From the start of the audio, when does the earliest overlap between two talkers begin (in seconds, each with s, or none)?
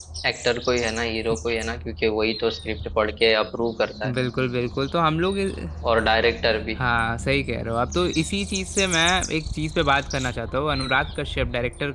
none